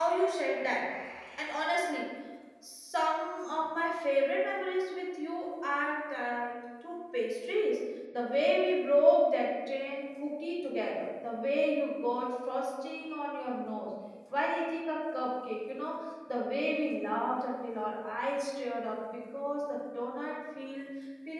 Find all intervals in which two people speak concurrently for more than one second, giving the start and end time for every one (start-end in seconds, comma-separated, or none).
none